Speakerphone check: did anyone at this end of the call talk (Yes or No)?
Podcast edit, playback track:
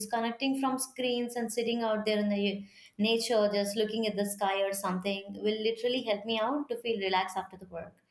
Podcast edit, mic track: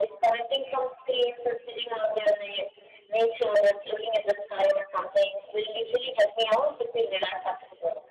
No